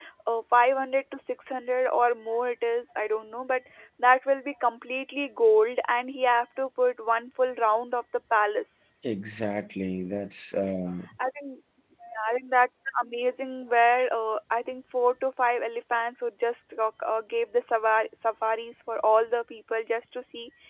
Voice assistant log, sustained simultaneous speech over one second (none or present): none